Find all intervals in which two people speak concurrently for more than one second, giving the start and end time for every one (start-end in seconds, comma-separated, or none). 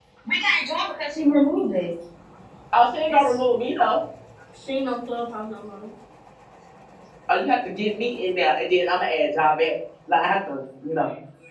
none